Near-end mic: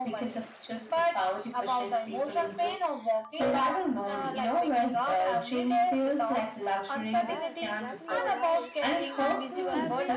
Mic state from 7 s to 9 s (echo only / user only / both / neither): both